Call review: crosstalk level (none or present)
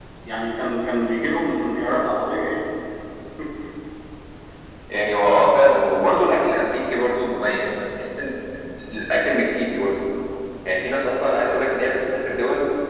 none